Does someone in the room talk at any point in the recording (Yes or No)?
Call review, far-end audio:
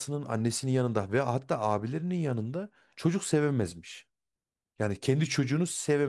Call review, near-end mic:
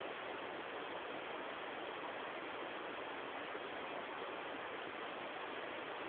No